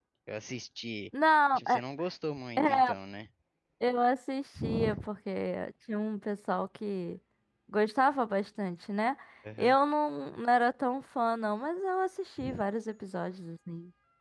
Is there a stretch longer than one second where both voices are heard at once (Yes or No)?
No